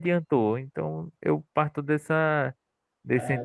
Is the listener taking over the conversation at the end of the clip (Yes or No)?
No